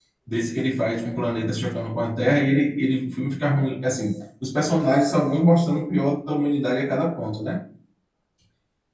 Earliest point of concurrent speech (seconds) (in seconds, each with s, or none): none